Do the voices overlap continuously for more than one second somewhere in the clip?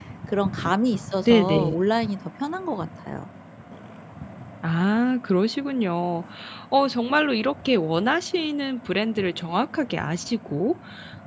No

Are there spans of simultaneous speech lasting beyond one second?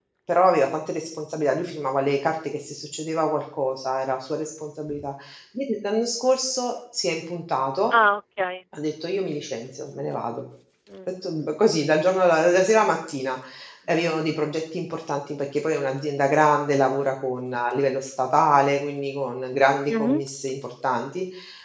No

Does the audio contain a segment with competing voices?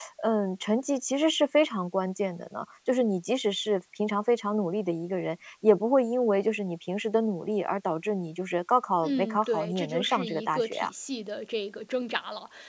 Yes, from 9.0 s

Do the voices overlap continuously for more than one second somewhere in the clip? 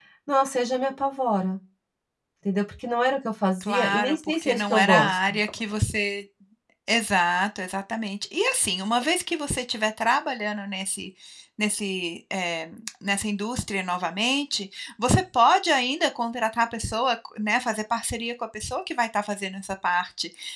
Yes, from 3.6 s

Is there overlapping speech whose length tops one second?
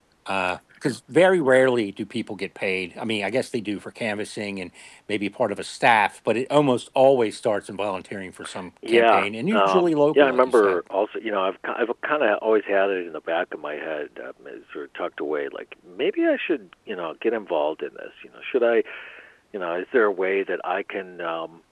Yes, from 8.8 s

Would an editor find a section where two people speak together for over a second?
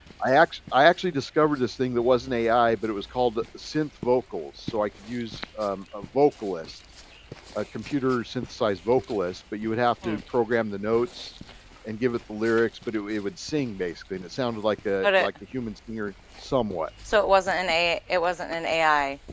No

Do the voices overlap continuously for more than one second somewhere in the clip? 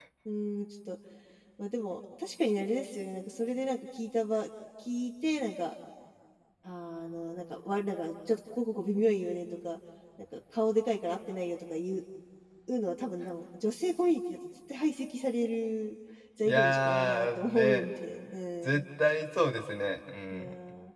Yes, from 16.4 s

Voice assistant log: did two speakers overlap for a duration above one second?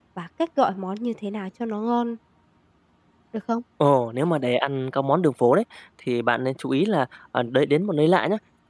No

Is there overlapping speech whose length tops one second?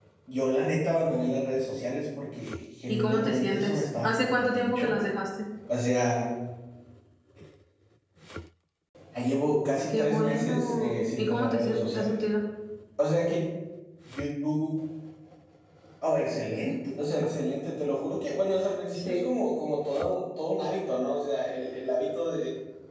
Yes, from 2.9 s

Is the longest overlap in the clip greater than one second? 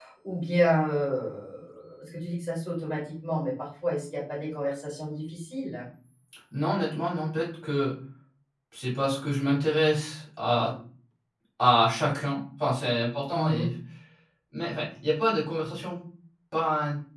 No

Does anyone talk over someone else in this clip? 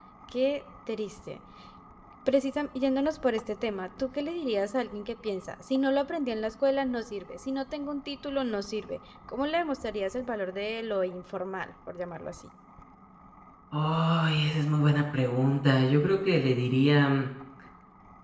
No

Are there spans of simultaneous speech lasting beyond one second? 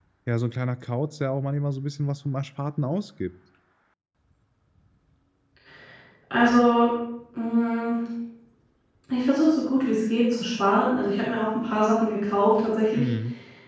No

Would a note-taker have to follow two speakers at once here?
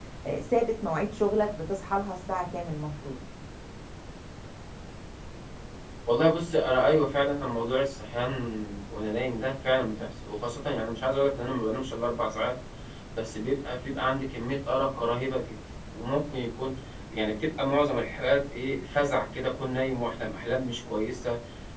No

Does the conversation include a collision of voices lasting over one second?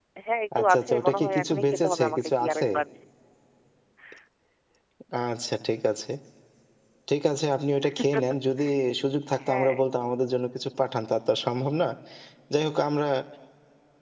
Yes, from 0.6 s

